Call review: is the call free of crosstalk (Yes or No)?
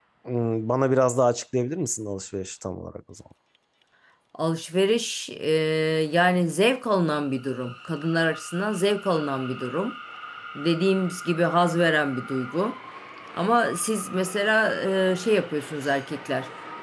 Yes